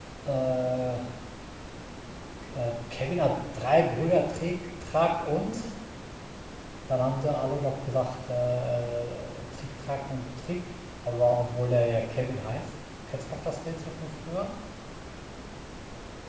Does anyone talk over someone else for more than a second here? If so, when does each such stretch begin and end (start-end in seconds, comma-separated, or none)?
none